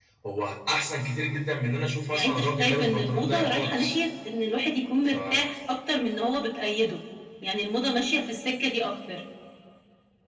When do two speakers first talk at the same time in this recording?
2.1 s

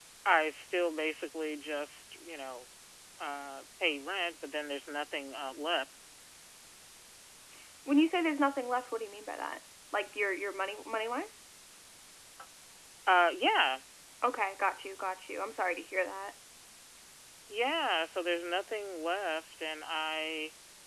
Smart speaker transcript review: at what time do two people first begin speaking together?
none

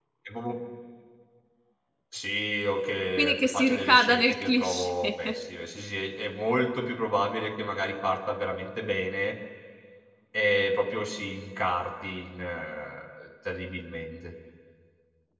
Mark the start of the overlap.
3.2 s

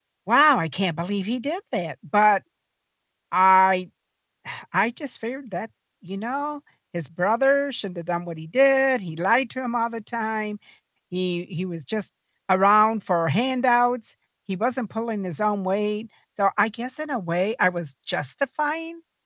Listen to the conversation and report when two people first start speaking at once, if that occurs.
none

